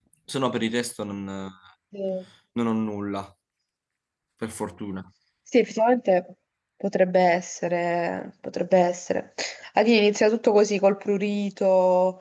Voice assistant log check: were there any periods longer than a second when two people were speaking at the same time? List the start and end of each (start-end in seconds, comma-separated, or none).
none